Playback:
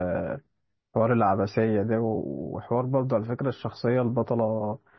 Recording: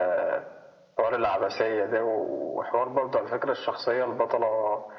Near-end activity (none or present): none